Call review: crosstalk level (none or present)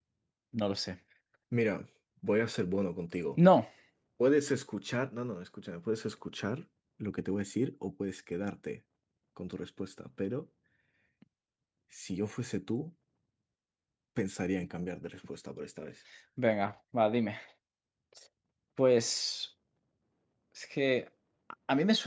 none